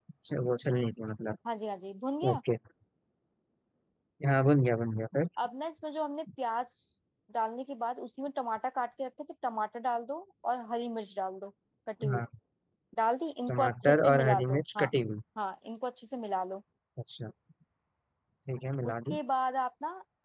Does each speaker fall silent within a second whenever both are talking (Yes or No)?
No